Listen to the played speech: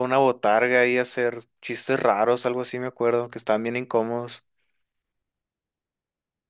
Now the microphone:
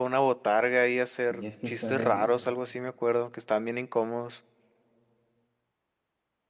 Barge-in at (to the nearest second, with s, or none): 1 s